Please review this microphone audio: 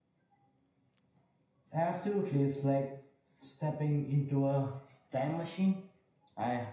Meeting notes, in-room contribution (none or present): none